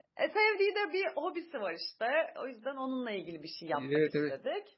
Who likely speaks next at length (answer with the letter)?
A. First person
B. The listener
B